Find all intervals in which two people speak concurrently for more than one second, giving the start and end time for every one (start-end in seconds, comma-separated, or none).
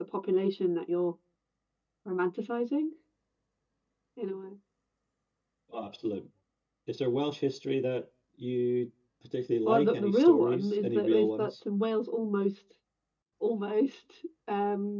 9.7-11.5